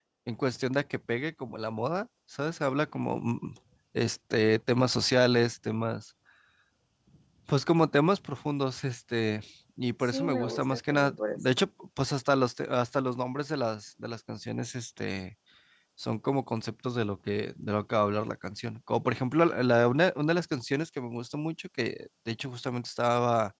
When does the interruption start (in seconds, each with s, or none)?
10.1 s